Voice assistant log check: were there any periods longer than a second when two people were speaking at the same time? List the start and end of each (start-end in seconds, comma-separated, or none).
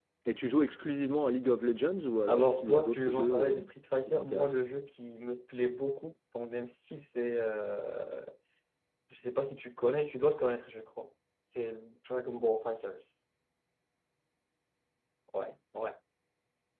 2.3-4.6